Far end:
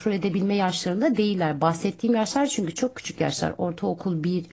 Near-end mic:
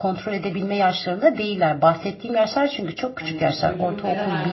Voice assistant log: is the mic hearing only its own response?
No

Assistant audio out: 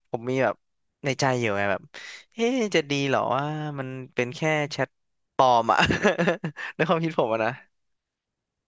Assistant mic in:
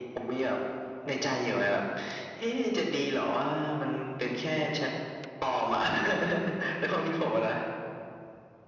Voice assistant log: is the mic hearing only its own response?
Yes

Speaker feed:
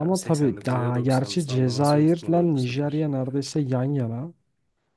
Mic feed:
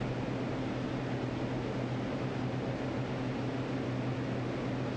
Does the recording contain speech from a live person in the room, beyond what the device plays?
No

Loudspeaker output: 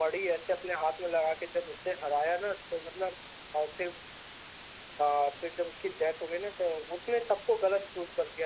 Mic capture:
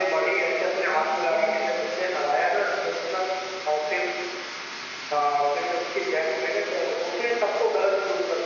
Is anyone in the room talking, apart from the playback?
Yes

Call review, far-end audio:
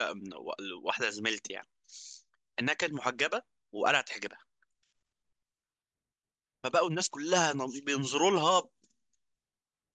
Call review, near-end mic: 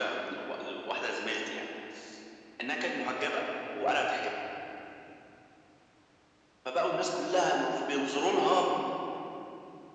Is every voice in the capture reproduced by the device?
Yes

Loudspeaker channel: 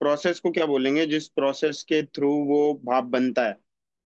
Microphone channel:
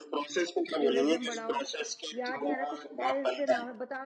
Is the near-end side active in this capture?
Yes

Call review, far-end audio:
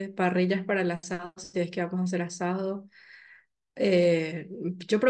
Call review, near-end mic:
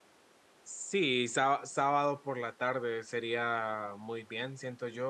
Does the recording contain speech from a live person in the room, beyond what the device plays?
Yes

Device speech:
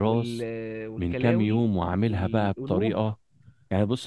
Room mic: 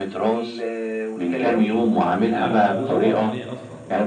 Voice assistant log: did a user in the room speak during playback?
Yes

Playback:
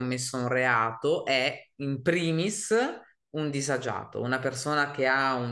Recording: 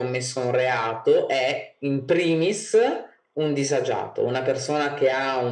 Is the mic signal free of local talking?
Yes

